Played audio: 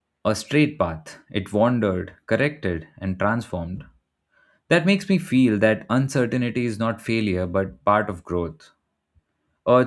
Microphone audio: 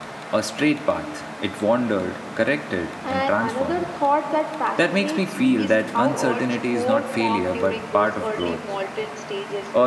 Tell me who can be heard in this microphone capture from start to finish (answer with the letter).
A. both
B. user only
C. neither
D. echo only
A